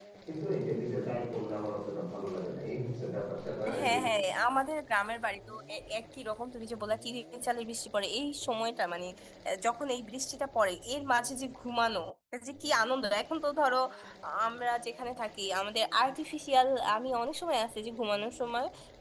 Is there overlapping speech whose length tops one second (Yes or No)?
No